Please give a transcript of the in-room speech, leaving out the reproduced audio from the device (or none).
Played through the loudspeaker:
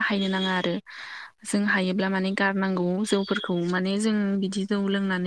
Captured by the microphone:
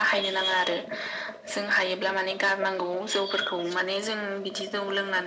none